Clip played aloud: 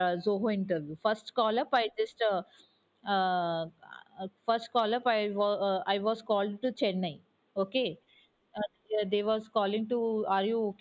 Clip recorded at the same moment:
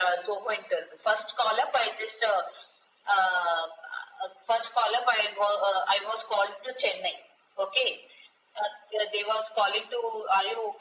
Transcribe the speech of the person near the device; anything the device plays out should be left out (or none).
none